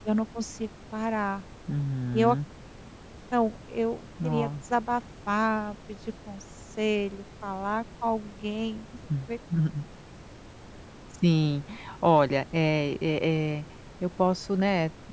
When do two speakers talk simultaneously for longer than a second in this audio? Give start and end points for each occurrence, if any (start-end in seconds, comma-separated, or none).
none